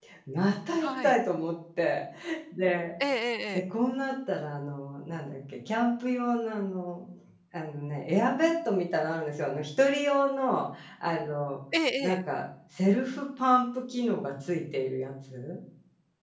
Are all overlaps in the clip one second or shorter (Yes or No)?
Yes